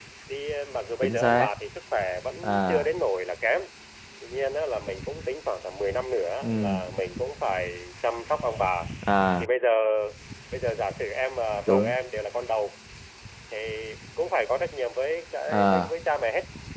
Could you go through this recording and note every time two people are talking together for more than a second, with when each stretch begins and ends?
none

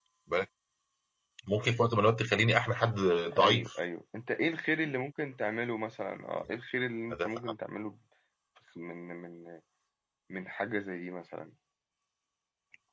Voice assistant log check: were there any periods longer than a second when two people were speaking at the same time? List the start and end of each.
none

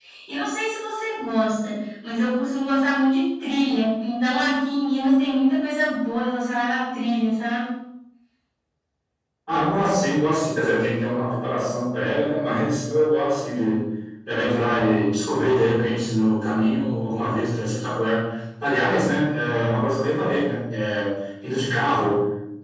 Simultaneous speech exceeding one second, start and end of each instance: none

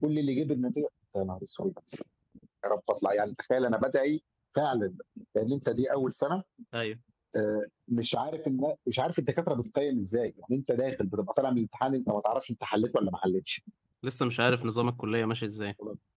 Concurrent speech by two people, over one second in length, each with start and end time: none

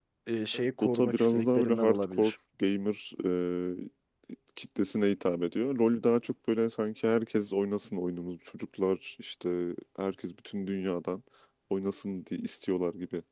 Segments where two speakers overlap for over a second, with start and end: 0.5-2.3

